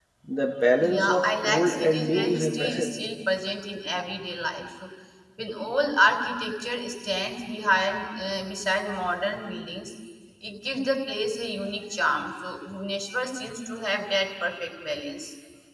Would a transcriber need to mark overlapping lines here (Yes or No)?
Yes